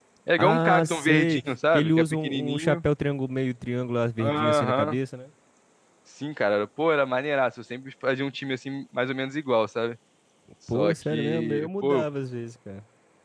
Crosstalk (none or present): present